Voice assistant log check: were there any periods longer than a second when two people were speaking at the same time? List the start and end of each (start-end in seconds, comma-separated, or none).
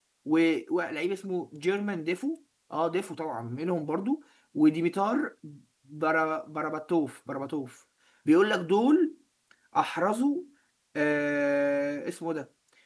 none